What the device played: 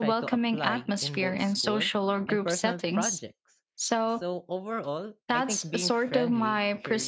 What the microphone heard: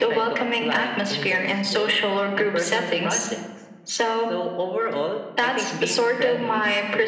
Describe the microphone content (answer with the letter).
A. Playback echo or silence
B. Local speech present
A